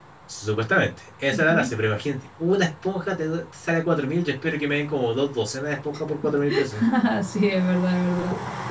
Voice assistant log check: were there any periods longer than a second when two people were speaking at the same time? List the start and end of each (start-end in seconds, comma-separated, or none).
none